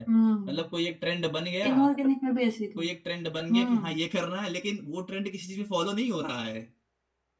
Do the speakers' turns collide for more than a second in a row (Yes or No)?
No